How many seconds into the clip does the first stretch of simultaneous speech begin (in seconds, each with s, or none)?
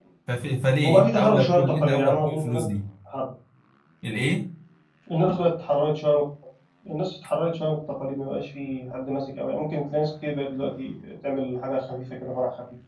0.8 s